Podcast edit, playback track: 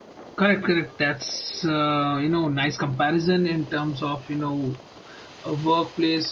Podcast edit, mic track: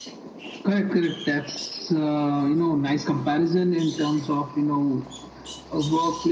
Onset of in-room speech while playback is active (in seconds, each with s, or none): none